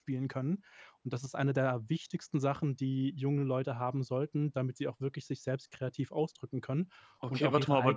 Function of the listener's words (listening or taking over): taking over